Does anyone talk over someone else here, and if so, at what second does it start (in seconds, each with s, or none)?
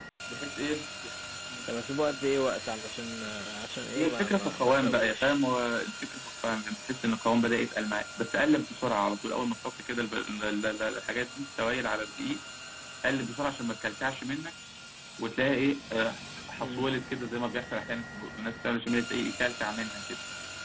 4.0 s